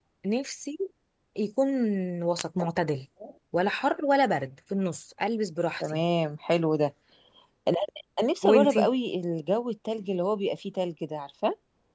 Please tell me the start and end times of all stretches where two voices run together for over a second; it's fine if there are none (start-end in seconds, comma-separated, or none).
none